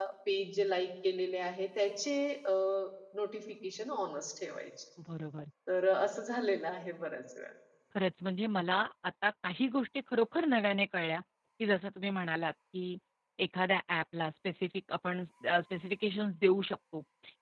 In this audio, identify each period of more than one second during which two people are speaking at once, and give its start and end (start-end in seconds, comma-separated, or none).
none